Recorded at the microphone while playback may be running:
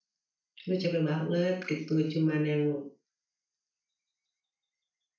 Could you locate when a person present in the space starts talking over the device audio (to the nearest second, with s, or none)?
1 s